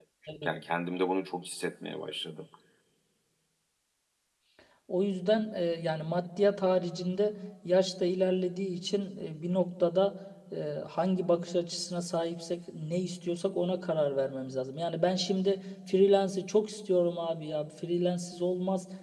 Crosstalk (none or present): none